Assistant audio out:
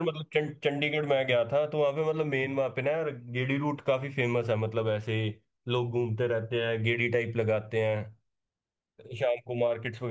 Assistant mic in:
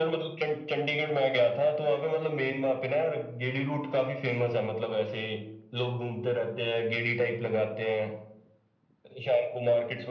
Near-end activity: none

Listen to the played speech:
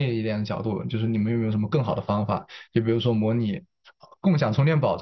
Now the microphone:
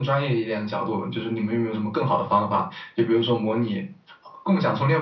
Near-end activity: none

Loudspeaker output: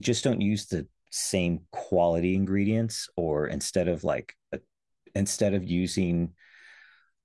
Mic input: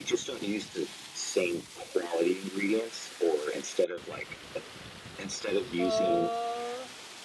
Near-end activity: present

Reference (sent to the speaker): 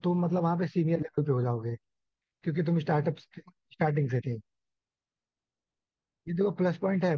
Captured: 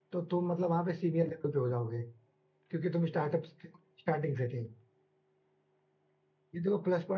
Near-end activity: none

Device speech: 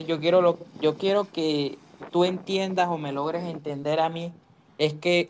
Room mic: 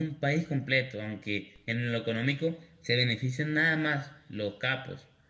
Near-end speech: present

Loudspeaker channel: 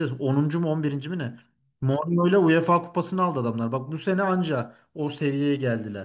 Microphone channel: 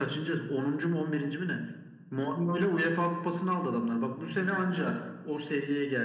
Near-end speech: present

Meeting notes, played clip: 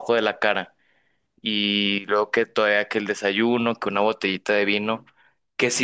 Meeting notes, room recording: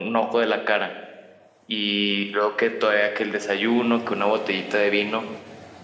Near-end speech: none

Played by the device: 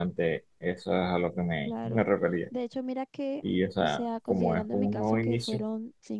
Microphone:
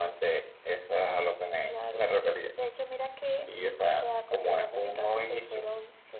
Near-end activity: none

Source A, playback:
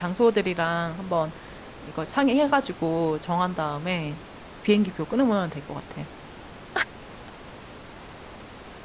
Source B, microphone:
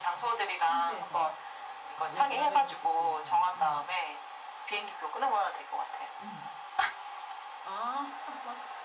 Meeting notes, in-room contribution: present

